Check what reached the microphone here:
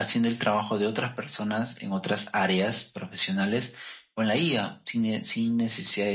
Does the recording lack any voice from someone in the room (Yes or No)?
Yes